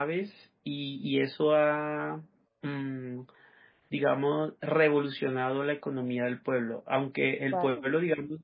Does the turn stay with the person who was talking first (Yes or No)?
Yes